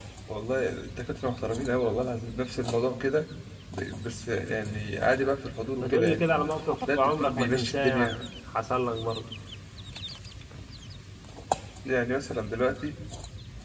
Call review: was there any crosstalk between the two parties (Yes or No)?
Yes